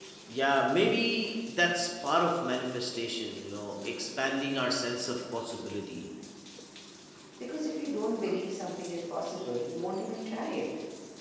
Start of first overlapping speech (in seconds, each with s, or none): none